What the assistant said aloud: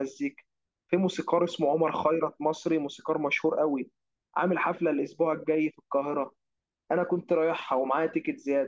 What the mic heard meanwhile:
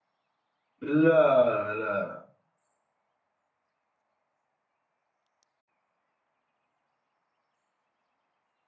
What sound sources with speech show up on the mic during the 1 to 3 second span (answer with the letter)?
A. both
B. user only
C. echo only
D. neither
B